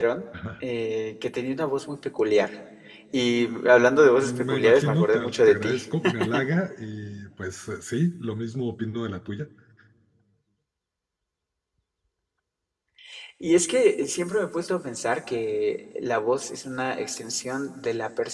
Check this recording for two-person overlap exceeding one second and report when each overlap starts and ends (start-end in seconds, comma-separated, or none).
4.2-5.8